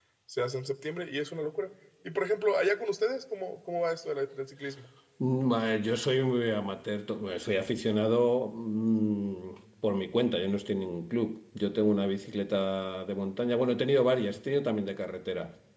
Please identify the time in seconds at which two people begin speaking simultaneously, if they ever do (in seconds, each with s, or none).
none